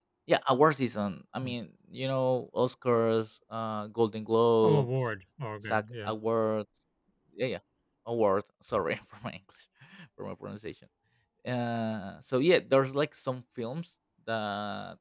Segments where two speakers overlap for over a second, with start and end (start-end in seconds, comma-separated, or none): none